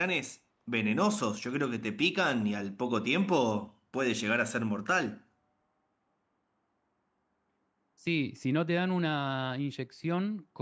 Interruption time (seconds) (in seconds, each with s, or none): none